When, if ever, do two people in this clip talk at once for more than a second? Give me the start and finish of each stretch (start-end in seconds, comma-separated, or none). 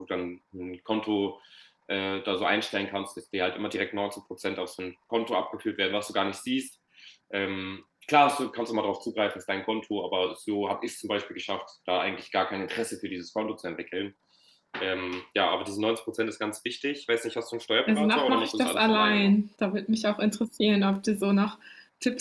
17.9-19.3